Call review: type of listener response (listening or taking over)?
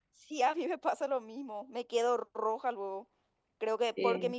listening